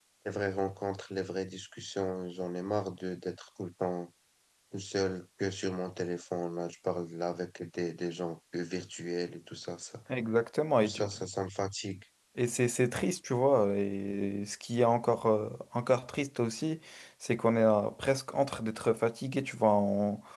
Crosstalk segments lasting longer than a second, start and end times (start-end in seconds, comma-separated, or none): none